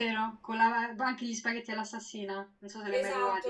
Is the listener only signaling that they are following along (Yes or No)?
No